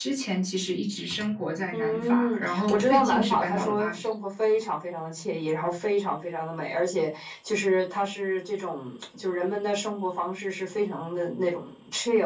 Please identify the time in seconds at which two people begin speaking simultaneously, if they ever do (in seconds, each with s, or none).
1.7 s